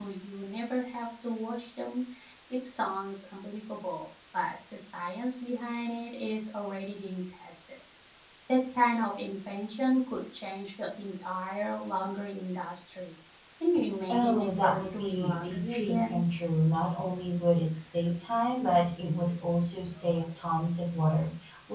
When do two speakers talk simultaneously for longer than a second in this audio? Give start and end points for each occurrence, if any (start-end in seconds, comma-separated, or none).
14.1-16.2